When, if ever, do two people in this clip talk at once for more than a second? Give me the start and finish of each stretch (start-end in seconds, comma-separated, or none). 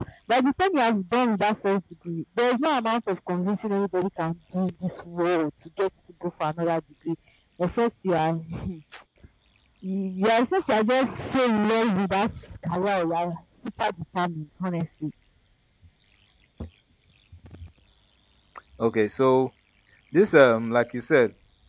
none